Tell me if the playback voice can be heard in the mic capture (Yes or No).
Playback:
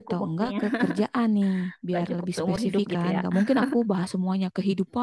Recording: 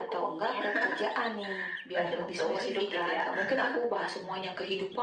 Yes